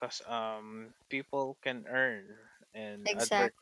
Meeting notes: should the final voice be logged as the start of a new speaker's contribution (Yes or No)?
No